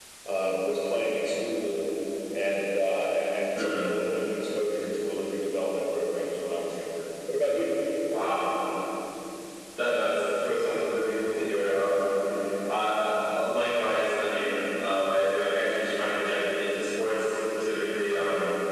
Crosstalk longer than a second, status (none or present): none